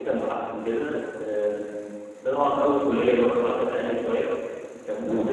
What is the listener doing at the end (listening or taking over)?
listening